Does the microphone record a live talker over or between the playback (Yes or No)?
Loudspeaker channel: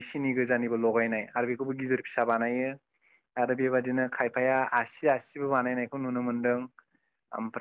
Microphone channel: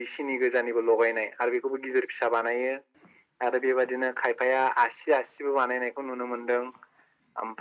No